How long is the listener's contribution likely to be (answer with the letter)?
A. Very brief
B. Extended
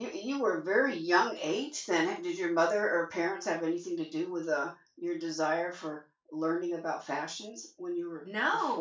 B